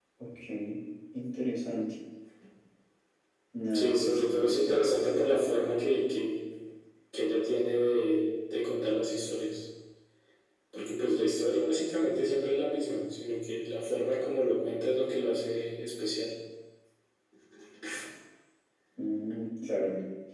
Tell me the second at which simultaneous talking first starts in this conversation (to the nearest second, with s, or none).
4 s